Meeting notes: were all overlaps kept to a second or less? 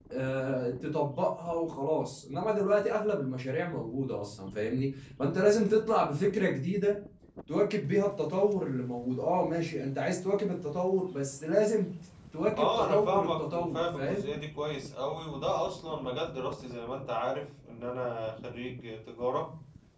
No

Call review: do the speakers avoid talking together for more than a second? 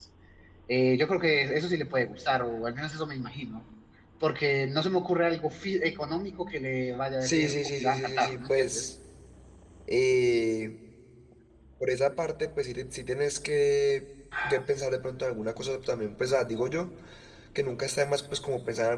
No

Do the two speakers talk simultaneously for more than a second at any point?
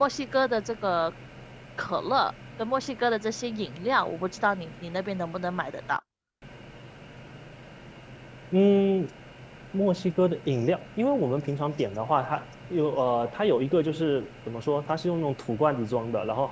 No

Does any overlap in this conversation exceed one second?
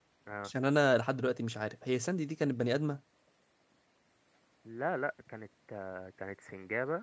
No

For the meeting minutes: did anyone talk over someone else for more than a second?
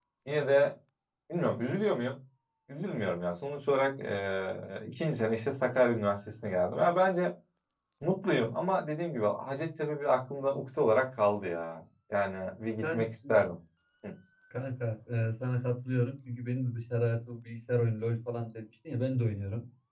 No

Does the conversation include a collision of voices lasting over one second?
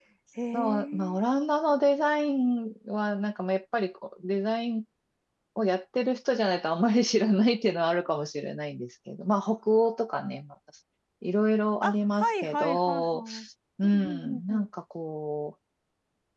Yes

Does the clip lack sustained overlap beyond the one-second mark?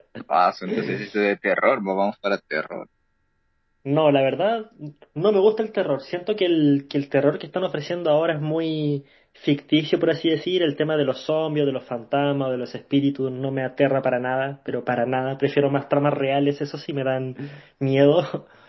Yes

